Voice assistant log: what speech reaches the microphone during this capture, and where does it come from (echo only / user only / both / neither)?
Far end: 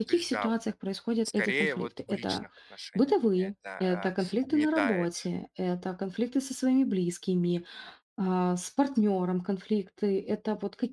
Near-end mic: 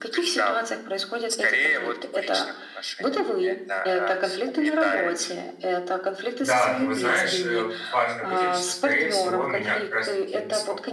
both